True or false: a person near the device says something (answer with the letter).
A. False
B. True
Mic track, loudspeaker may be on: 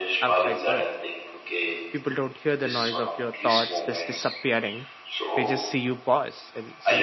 B